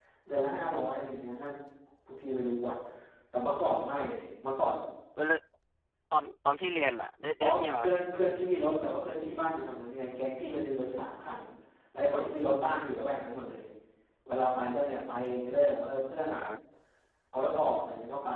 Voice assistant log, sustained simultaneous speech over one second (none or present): none